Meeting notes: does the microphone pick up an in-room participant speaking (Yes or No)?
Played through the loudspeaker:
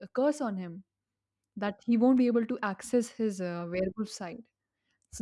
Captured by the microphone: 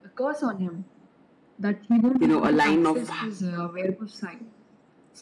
Yes